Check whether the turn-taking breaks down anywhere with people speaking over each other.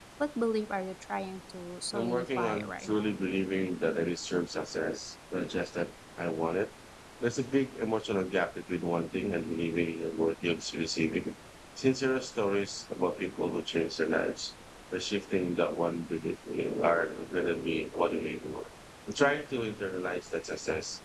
Yes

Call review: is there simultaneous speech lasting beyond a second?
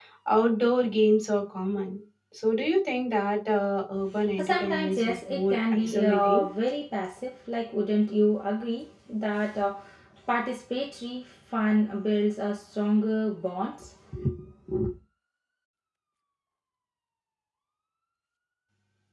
Yes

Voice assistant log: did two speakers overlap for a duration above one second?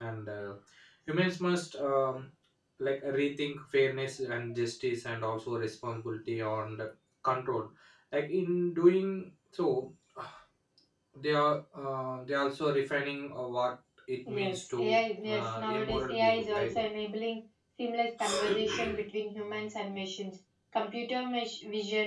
Yes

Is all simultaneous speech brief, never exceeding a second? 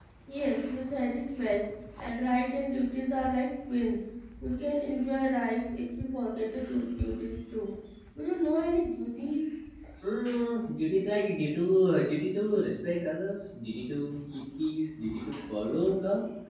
Yes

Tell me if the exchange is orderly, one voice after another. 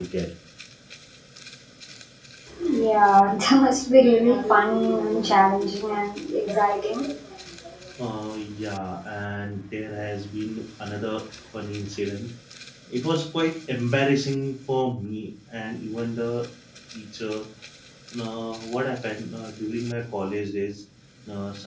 Yes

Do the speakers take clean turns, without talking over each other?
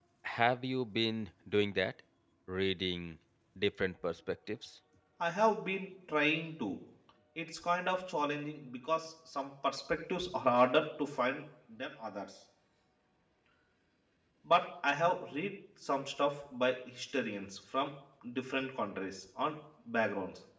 Yes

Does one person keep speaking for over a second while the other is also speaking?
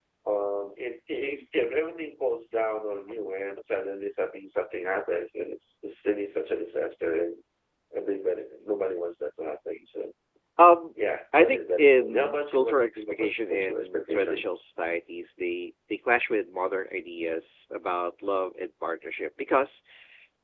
Yes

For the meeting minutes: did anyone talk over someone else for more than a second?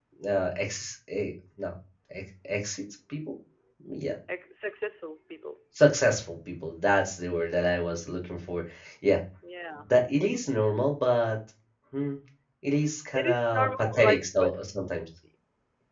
Yes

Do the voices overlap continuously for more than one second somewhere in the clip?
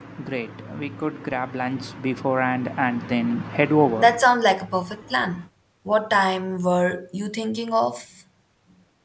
No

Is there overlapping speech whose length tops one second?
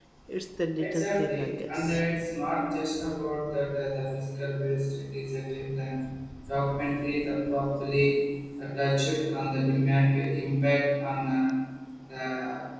Yes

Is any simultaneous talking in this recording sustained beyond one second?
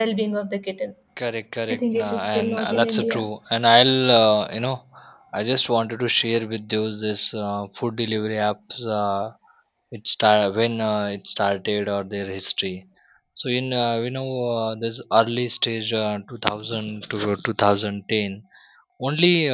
Yes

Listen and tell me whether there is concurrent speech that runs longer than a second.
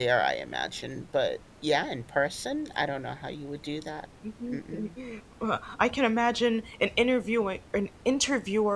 No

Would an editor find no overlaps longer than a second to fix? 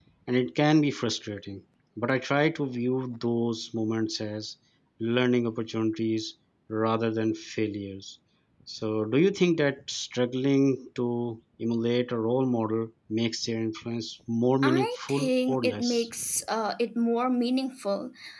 No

